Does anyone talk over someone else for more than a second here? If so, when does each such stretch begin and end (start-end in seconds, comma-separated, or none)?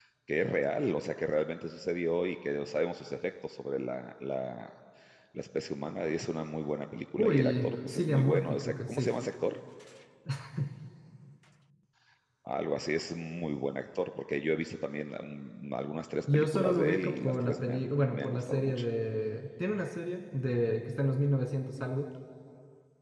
7.2-9.1, 16.3-18.8